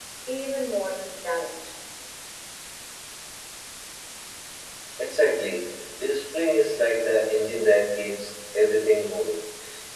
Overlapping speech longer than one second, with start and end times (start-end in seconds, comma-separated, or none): none